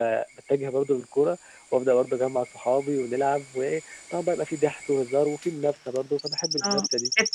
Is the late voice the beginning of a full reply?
Yes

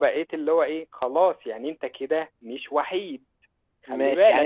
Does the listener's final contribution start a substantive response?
Yes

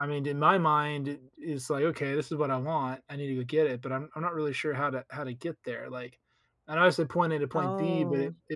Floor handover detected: No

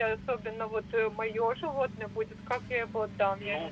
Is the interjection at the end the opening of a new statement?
Yes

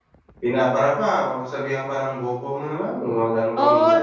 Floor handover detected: Yes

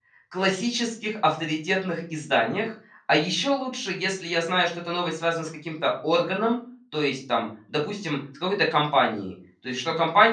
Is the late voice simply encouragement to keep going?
Yes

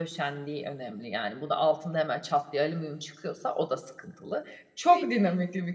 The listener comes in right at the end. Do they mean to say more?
No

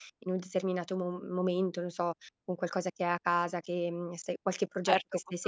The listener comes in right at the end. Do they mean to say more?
Yes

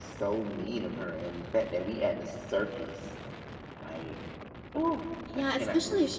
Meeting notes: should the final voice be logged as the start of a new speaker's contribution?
Yes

